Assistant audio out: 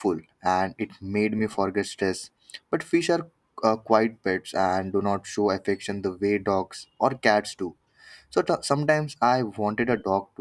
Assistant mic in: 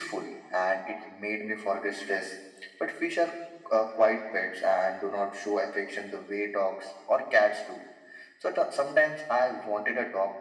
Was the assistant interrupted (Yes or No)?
No